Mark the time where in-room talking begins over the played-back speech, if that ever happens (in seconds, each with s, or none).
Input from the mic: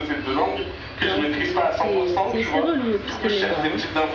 1.0 s